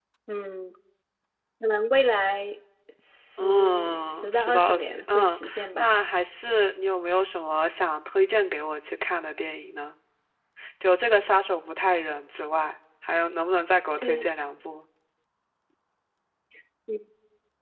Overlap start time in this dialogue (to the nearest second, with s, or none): 3 s